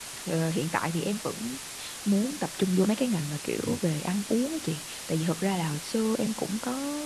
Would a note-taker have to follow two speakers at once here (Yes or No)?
No